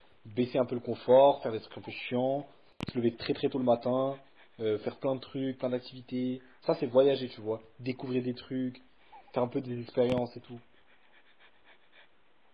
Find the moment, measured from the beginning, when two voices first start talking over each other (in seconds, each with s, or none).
none